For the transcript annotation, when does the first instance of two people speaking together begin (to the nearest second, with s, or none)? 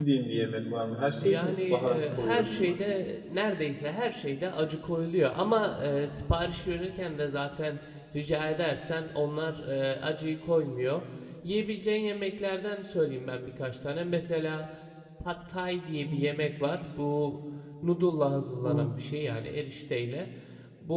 1 s